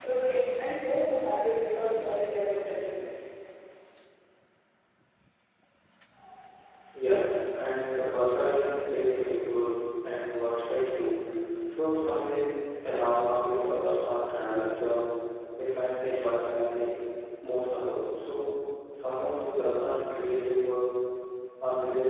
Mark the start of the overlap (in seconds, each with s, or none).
none